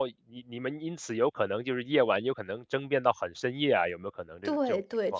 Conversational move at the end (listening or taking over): taking over